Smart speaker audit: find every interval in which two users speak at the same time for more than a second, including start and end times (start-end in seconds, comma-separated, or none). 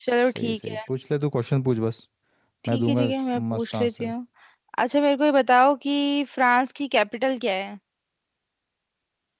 2.7-4.1